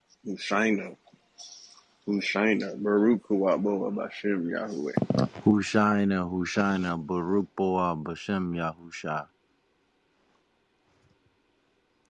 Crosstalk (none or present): none